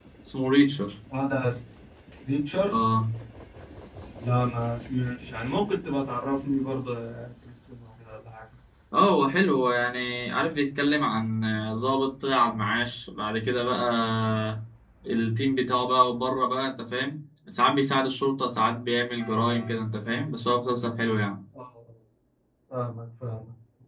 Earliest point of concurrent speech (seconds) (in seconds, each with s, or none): none